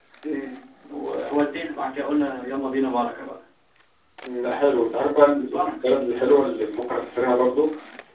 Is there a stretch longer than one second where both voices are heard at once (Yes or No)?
No